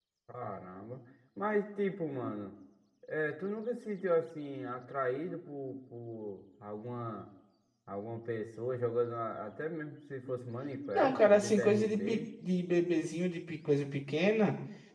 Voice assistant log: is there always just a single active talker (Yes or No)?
No